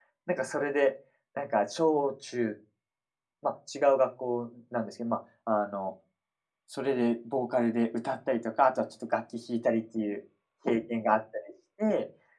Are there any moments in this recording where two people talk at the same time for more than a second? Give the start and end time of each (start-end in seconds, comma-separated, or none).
none